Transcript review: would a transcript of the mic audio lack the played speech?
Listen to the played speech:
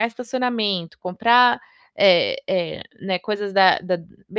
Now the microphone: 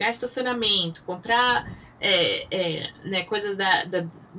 No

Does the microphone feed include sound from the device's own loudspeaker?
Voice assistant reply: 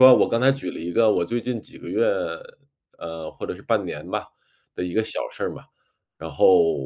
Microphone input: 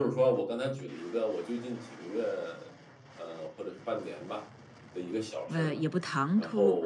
Yes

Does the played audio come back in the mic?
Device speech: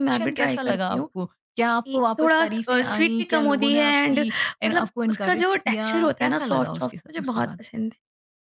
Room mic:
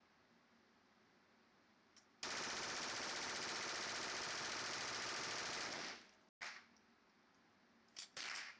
No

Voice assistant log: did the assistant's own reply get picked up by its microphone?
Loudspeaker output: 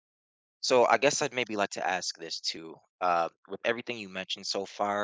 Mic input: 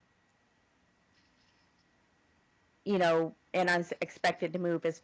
No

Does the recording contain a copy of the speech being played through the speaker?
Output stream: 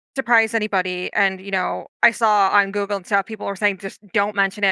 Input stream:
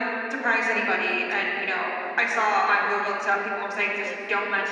Yes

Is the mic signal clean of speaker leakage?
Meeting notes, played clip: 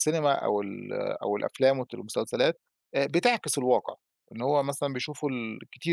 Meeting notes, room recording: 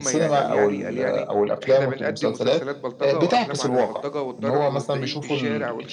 No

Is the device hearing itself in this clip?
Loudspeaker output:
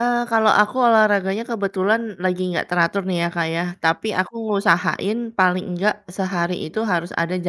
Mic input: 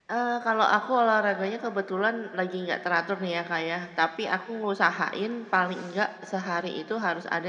Yes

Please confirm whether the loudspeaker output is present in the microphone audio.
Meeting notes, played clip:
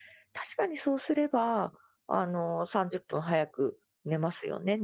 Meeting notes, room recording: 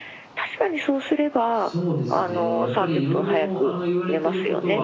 Yes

